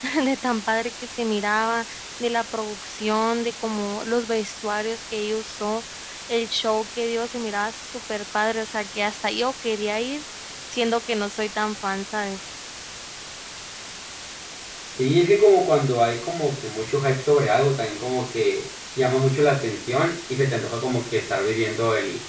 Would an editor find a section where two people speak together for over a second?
No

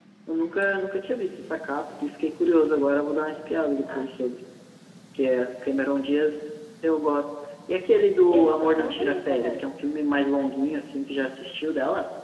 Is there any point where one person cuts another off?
Yes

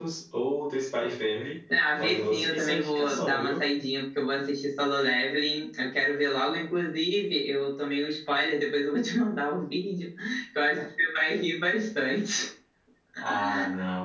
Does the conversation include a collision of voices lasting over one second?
Yes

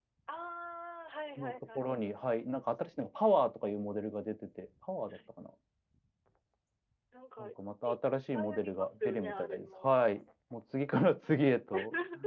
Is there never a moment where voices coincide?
No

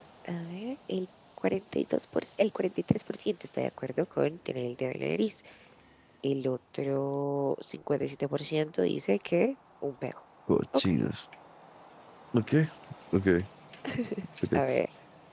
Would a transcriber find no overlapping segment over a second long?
Yes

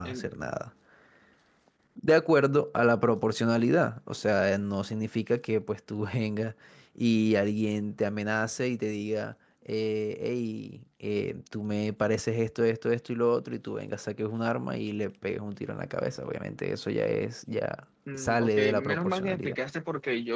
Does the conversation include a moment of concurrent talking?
Yes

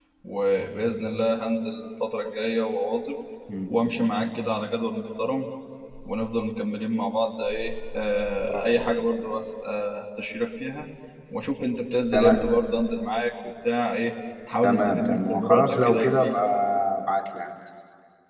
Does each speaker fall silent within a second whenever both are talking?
No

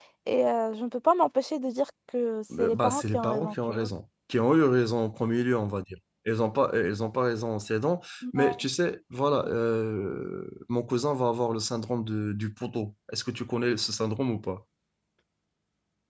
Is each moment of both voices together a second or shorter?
No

